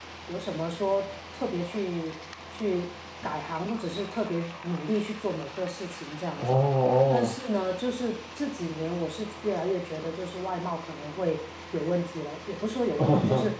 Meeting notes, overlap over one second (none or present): none